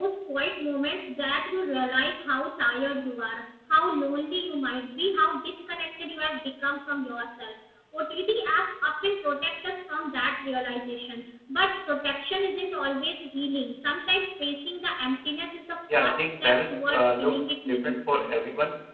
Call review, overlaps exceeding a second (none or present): present